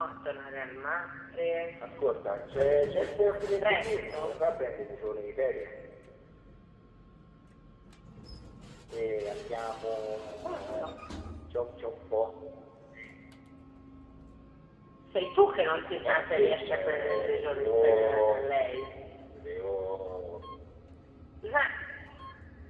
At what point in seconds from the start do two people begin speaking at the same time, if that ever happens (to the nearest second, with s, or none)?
3 s